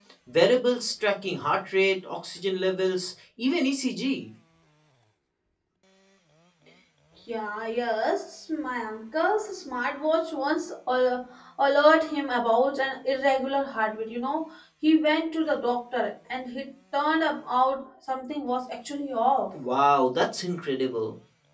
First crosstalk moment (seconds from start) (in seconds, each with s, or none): none